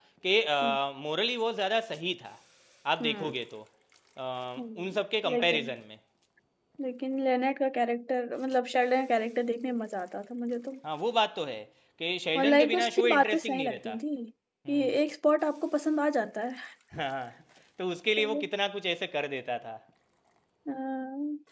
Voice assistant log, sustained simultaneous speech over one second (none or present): present